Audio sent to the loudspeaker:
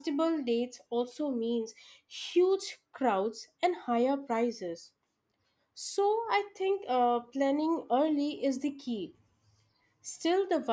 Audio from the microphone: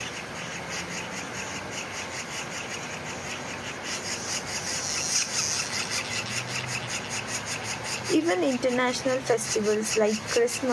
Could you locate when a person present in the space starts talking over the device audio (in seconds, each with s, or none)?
8.1 s